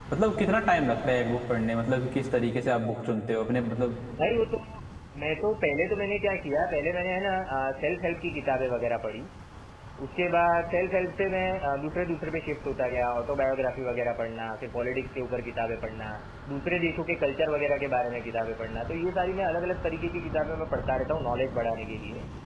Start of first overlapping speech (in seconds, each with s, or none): none